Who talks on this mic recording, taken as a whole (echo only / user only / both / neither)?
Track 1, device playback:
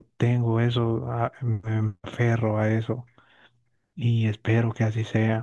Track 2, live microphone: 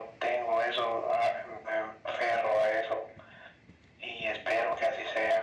echo only